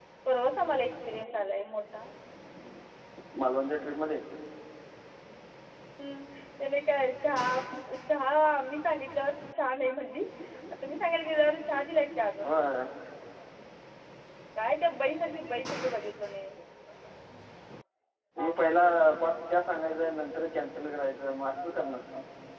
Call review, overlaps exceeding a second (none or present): none